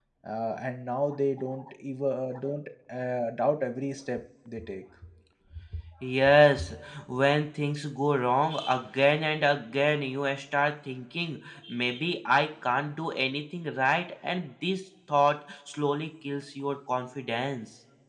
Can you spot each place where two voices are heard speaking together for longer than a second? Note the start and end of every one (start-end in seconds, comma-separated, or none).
none